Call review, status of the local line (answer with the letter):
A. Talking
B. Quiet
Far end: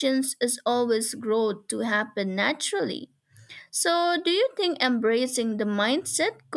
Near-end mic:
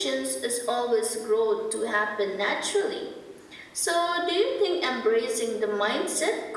B